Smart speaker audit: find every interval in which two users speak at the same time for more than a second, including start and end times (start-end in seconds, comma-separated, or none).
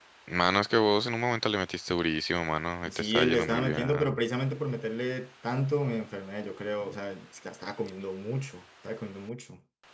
3.0-4.2